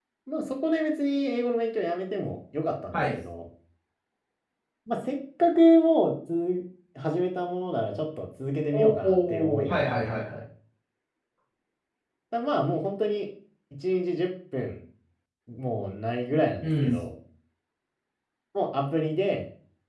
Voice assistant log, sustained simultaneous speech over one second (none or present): present